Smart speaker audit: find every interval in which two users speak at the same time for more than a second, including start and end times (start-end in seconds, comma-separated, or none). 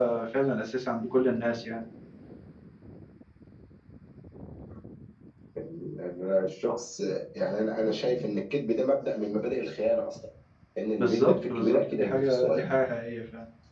11.0-12.6